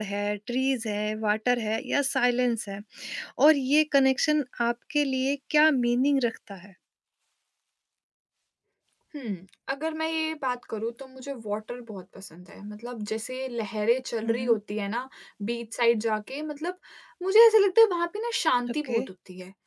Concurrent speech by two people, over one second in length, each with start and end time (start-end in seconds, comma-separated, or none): none